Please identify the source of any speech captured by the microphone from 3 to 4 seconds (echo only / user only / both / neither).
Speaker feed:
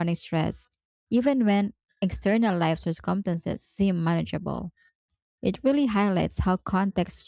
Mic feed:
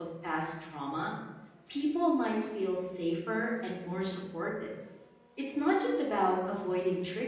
user only